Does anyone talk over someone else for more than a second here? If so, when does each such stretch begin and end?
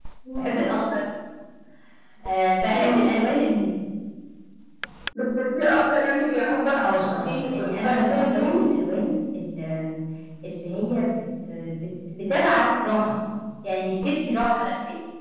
6.8-8.6

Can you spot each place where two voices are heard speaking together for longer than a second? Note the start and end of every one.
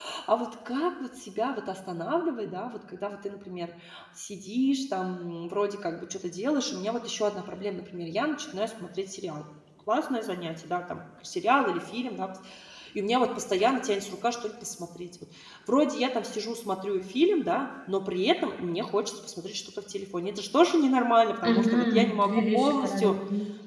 21.4-23.2

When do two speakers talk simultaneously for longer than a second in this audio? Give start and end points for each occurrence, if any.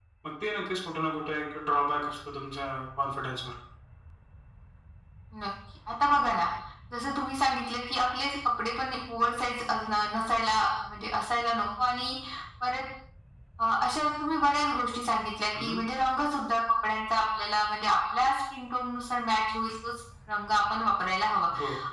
none

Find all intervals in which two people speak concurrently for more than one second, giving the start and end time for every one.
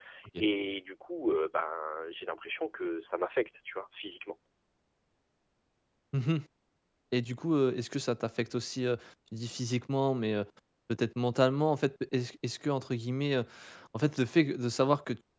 none

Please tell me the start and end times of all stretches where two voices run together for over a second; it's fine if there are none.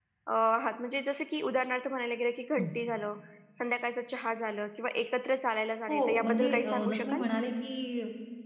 5.9-7.2

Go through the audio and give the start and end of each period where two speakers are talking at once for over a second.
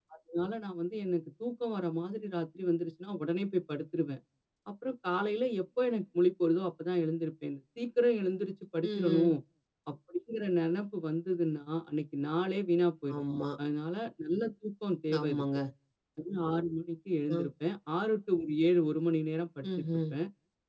none

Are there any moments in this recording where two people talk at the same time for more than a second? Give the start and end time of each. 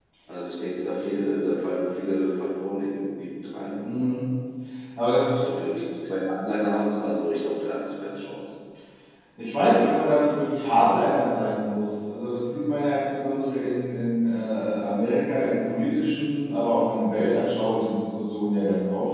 none

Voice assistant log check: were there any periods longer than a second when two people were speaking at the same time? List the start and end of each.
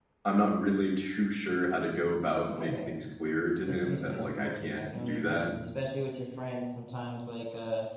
3.7-5.5

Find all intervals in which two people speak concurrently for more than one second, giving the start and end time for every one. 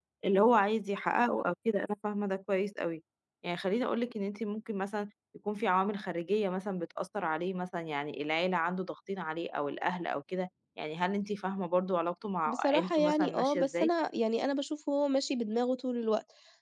12.5-13.9

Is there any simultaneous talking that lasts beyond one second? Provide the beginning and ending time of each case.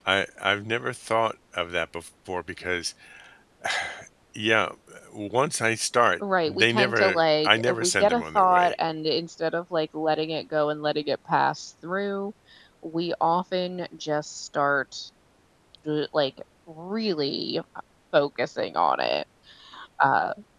6.5-8.7

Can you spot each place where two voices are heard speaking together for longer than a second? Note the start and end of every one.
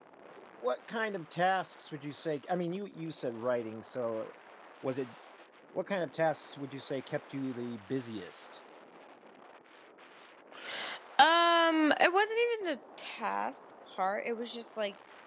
none

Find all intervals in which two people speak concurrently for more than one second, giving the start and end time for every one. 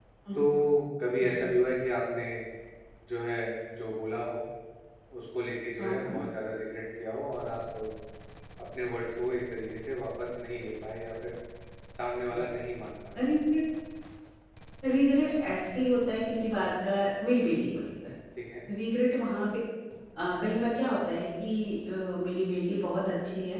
none

